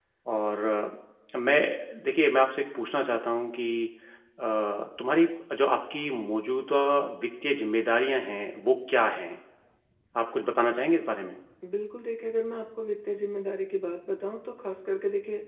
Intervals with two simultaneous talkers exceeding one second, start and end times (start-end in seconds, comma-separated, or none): none